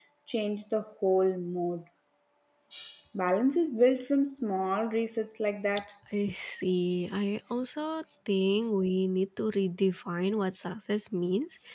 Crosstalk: none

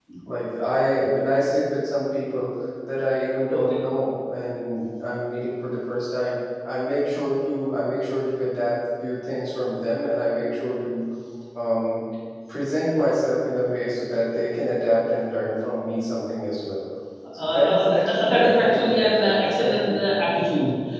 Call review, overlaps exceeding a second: present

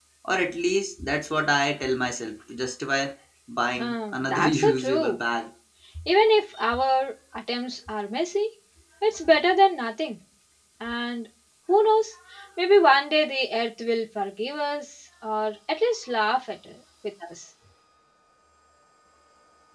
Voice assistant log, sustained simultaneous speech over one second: present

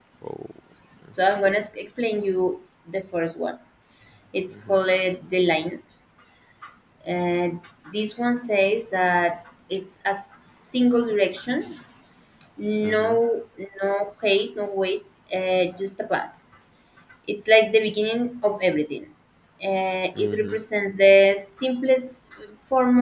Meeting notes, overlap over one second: none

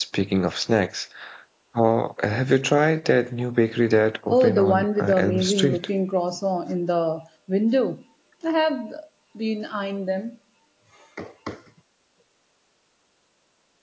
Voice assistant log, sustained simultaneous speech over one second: present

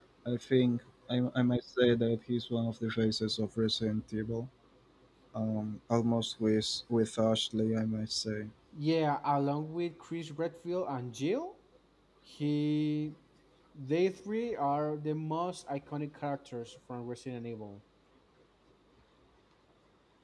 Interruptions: none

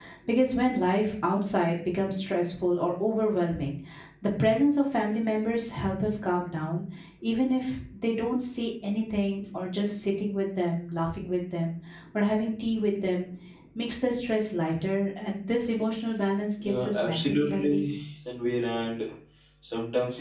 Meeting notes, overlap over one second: present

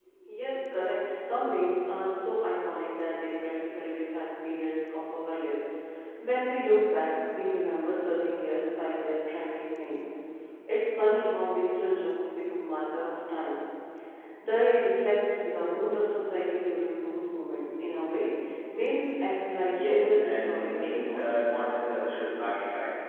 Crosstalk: present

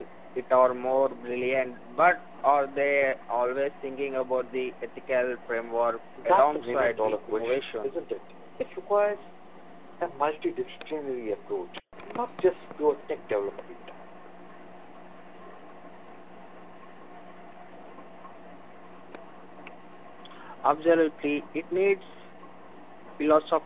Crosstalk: present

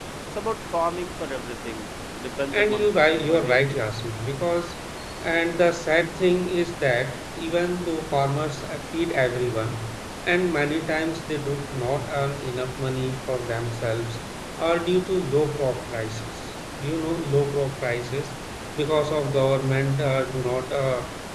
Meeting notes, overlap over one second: present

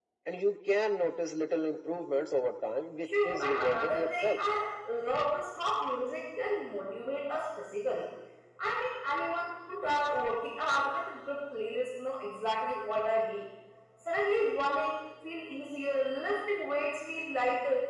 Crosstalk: present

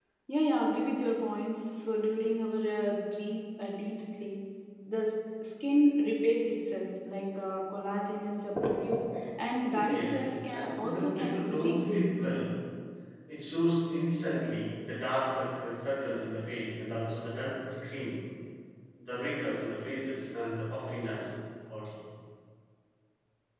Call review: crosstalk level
present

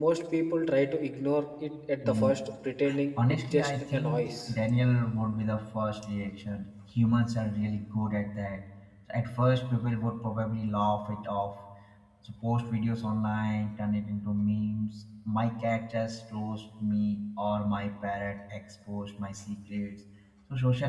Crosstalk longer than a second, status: present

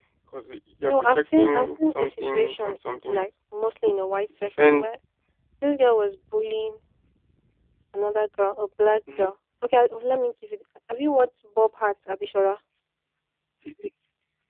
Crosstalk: present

